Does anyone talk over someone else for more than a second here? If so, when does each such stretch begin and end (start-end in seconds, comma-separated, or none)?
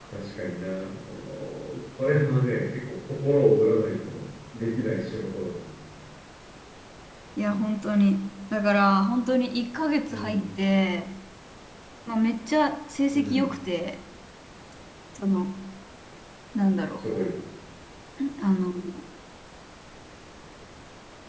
none